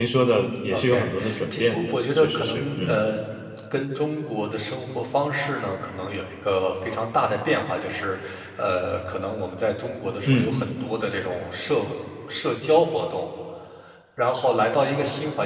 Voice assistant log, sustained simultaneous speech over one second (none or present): present